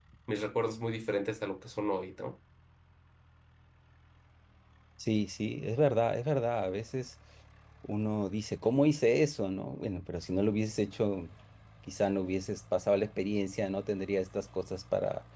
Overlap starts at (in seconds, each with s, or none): none